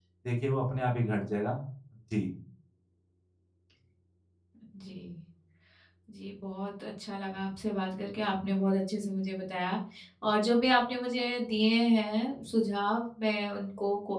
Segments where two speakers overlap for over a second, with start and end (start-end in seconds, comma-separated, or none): none